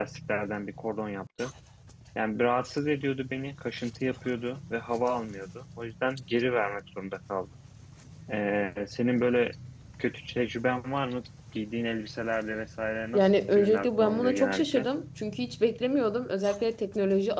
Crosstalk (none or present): present